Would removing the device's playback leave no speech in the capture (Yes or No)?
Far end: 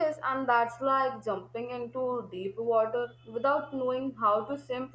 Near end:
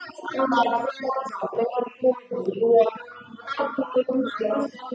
Yes